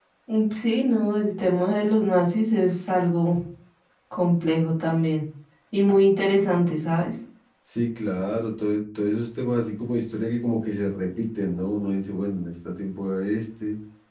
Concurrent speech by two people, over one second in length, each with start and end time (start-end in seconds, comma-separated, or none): none